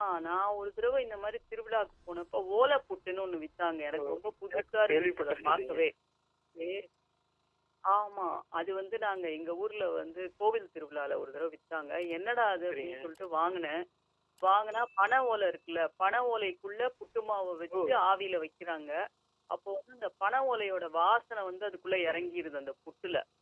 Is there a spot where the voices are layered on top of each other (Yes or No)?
Yes